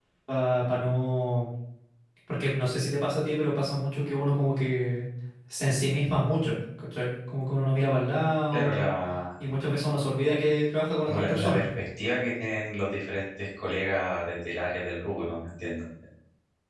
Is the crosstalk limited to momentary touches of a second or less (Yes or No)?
Yes